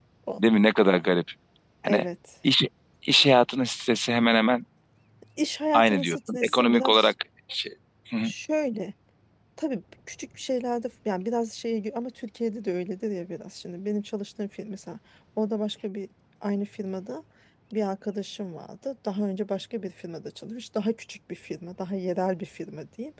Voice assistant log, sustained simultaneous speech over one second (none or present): present